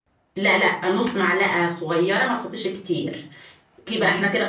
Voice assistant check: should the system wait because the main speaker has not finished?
Yes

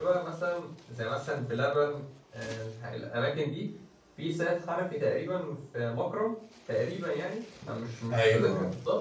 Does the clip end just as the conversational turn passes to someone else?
No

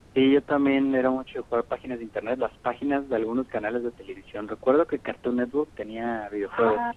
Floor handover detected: Yes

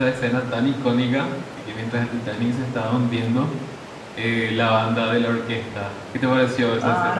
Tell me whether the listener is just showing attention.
No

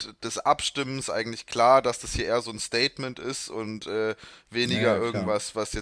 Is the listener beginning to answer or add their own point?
No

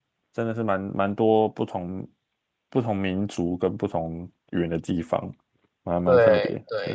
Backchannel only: No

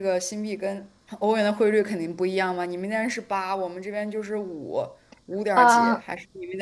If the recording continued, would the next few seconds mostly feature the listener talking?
No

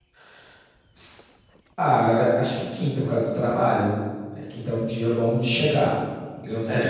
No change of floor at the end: No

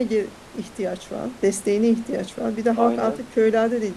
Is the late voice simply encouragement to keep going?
Yes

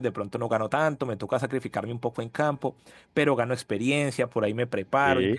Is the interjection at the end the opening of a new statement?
No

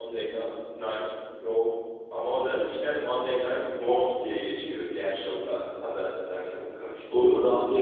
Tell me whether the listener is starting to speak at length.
Yes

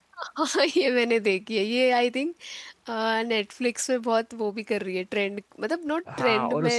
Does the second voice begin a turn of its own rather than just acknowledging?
Yes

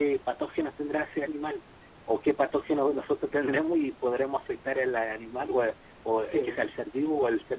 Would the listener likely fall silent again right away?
Yes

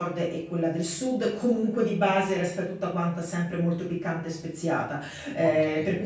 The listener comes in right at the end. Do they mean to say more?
No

